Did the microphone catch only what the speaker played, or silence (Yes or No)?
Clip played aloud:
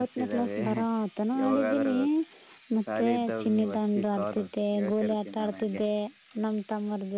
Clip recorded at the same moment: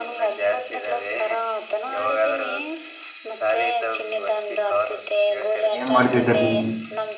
No